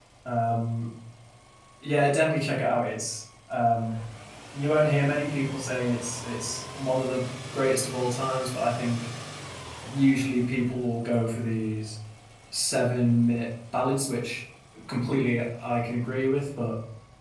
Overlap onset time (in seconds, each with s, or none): none